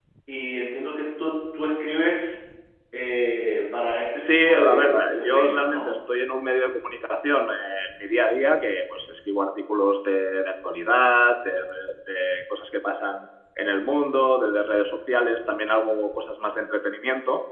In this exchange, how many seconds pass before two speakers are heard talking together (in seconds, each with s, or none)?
4.2 s